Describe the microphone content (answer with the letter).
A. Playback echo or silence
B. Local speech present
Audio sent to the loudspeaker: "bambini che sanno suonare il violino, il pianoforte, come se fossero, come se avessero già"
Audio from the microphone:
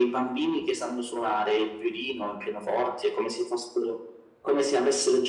A